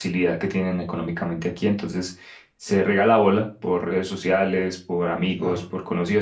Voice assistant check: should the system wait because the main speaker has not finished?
Yes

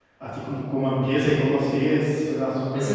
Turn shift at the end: Yes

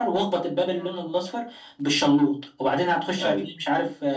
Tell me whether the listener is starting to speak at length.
No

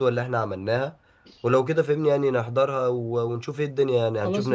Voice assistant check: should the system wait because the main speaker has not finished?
No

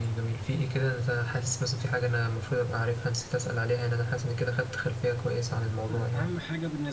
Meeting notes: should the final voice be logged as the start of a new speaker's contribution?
Yes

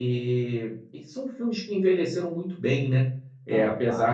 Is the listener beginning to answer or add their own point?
No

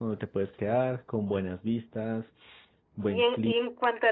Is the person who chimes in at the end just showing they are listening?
No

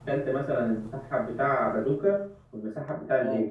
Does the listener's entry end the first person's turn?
No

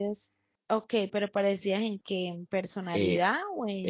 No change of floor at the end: No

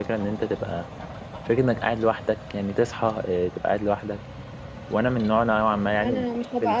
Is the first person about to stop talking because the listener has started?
Yes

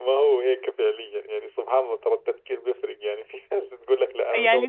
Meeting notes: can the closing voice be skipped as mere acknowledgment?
No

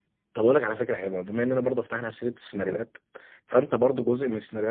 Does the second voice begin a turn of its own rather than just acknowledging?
No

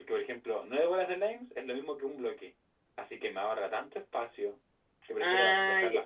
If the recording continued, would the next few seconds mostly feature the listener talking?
Yes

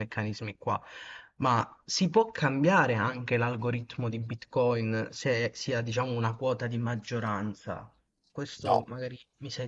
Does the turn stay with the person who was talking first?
Yes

